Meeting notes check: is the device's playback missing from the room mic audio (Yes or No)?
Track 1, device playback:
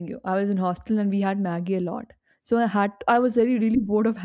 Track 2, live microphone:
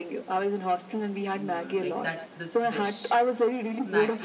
No